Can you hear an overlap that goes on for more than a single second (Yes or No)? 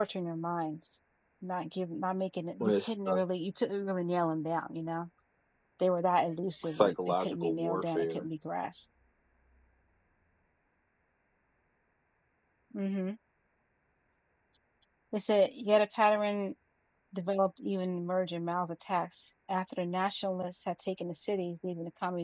Yes